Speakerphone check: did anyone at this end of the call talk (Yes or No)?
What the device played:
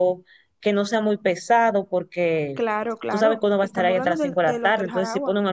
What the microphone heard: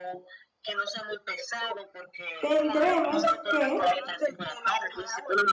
Yes